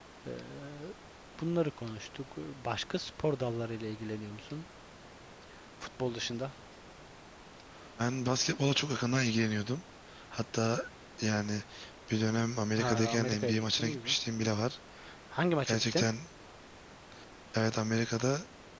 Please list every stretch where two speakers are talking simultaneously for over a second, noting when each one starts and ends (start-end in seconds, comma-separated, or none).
12.8-14.2